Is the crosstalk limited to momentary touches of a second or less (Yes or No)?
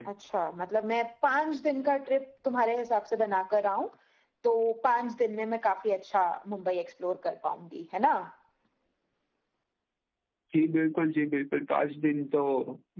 Yes